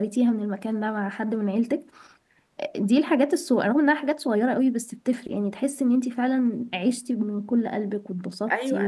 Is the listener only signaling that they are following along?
No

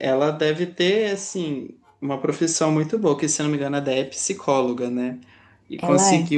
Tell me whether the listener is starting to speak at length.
No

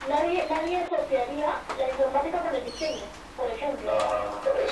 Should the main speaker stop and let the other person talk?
Yes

